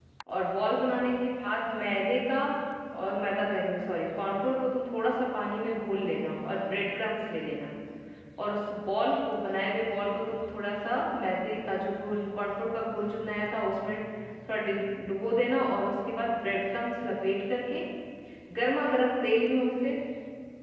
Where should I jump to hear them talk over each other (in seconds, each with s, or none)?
none